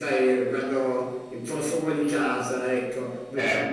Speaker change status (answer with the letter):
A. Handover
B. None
B